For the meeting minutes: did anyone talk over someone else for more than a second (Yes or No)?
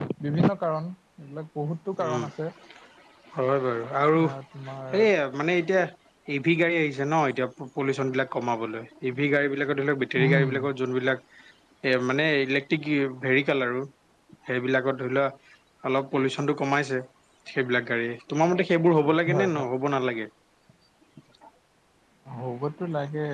No